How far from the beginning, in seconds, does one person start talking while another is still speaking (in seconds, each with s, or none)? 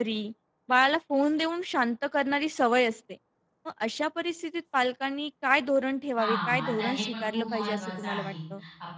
6.2 s